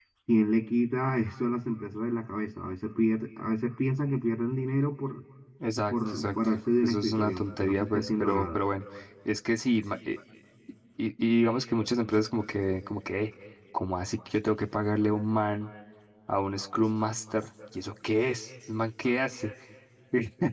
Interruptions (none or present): present